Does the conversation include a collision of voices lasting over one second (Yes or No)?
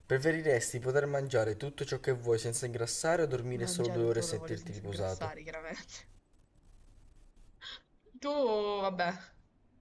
Yes